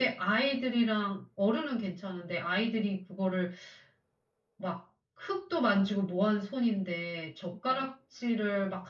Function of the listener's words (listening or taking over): listening